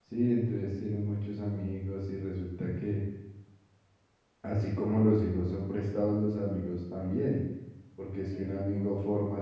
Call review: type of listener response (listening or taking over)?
listening